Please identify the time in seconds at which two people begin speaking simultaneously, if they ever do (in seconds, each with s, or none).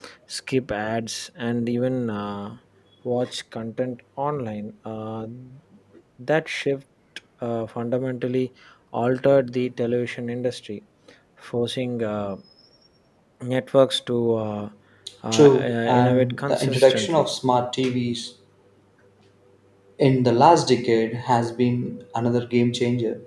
15.3 s